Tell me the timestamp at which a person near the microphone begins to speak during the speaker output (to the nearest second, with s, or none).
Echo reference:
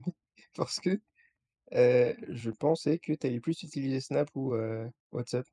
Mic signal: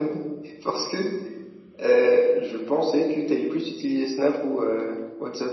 none